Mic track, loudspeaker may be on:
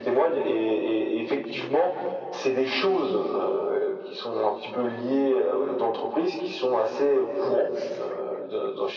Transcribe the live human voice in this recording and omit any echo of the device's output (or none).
none